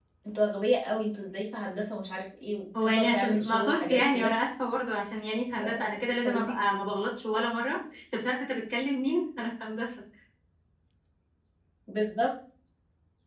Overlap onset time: 2.8 s

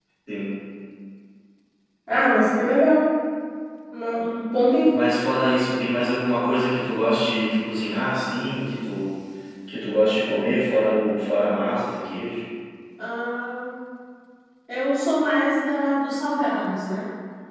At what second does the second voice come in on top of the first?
none

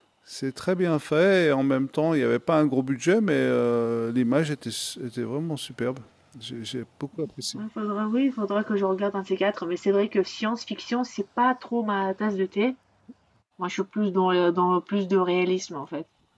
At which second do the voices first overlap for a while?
none

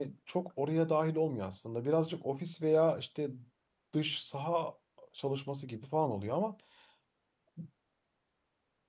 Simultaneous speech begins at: none

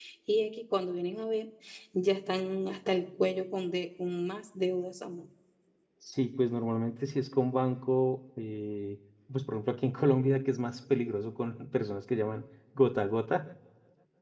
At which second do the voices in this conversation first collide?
none

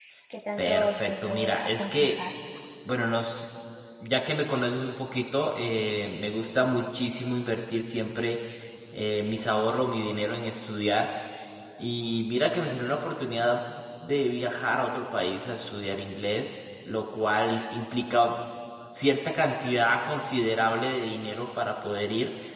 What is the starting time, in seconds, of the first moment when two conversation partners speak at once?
0.6 s

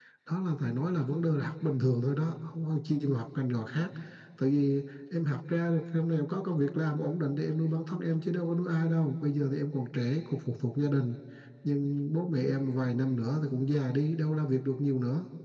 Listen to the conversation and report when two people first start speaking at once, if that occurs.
none

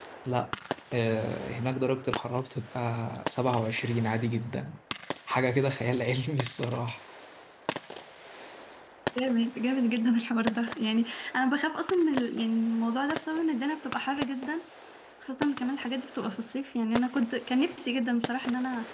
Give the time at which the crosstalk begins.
none

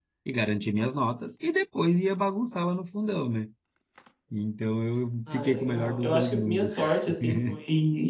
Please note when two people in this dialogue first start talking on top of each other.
5.3 s

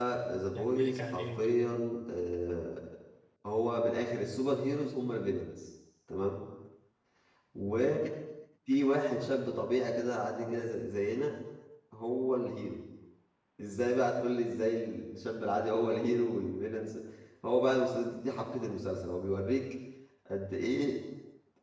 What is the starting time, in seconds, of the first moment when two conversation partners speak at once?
0.5 s

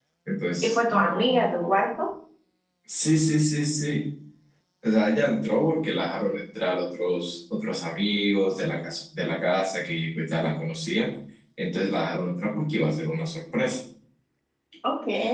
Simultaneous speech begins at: 0.6 s

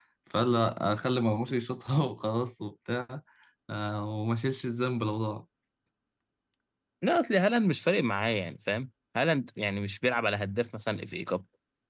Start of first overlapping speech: none

